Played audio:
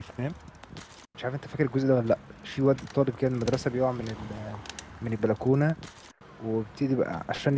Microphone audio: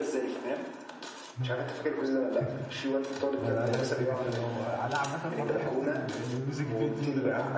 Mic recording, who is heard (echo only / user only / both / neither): both